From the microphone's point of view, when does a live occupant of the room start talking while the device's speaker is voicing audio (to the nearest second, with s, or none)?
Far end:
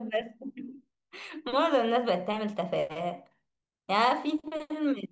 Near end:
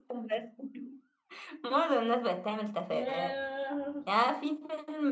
3 s